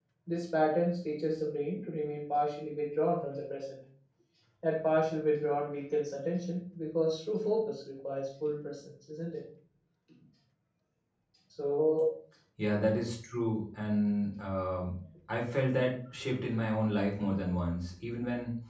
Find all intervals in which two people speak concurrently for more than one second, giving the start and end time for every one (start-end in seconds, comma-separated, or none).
none